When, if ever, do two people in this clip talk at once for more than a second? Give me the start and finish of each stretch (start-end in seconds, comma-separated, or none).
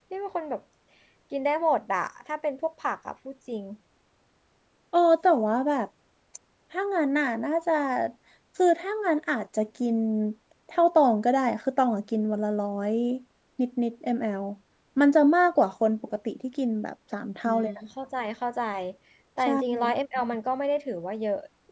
none